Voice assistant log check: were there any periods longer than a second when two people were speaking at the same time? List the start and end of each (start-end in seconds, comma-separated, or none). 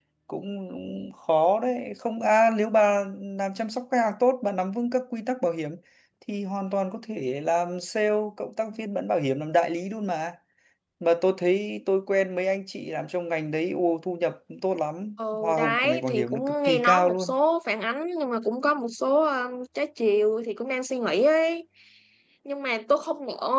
15.3-17.3